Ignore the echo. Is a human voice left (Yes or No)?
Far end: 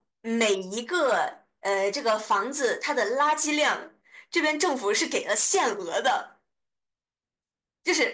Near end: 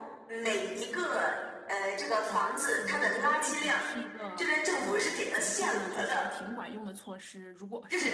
Yes